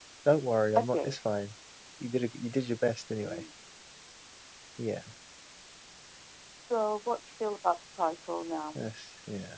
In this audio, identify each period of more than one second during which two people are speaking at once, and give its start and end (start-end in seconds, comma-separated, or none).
none